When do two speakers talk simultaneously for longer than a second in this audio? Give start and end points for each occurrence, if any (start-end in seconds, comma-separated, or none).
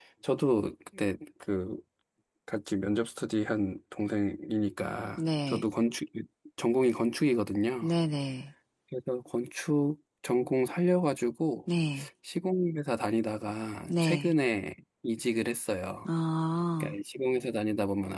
none